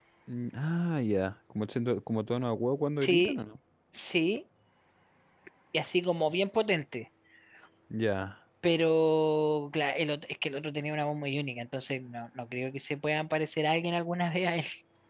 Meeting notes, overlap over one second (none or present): none